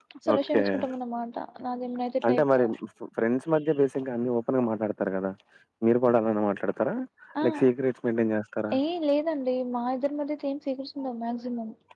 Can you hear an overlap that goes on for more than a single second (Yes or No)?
No